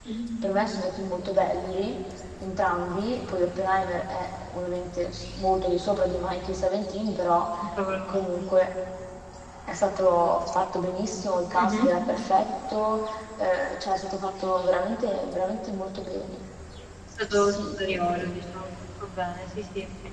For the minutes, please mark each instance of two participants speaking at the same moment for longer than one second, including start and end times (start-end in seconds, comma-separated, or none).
none